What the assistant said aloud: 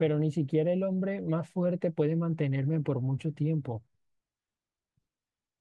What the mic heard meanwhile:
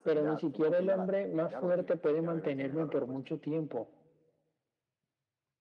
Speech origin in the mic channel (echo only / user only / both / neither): both